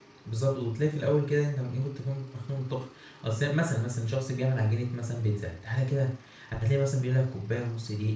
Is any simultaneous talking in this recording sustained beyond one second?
No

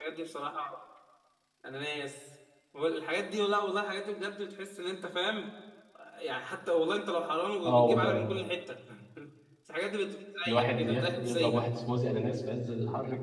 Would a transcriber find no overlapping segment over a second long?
No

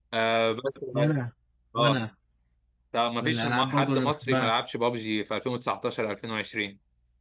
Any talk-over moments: Yes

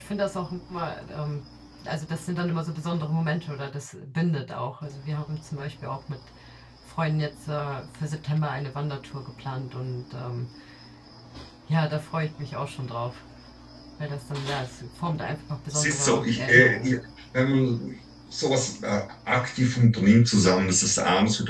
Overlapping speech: Yes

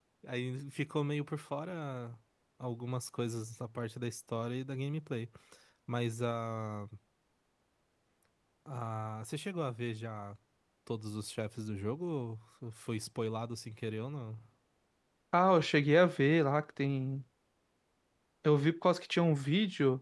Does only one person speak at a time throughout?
Yes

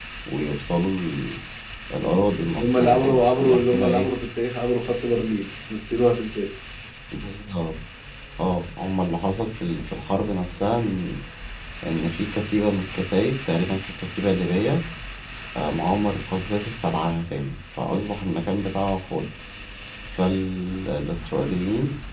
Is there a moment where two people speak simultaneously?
Yes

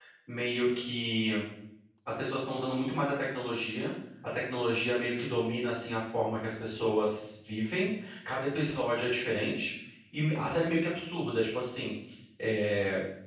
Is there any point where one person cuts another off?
No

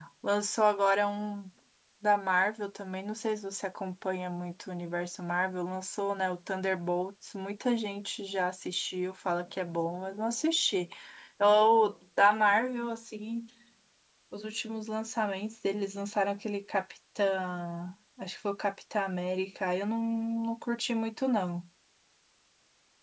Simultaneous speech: No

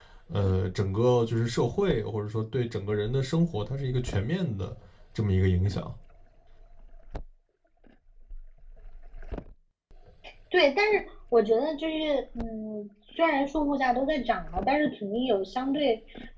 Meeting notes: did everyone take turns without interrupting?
Yes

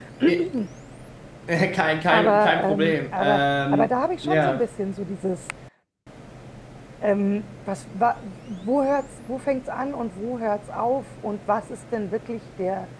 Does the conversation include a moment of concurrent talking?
Yes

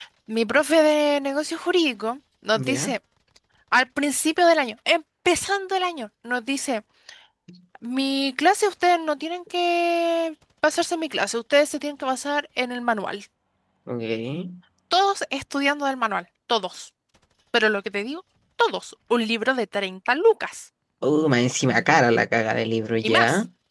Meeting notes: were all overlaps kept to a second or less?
Yes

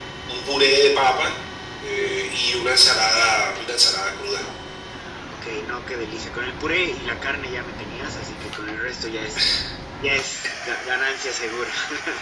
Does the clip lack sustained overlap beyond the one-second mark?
Yes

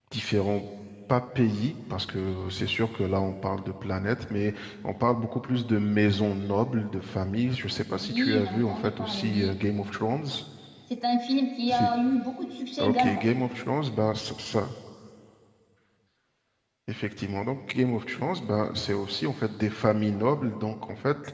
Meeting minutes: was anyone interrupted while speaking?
Yes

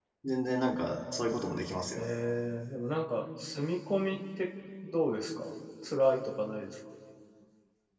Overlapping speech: No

